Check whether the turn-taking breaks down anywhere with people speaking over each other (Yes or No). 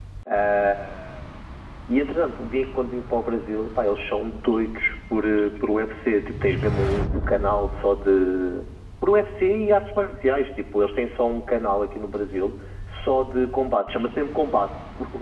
No